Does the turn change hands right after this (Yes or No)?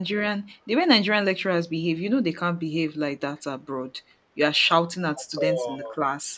No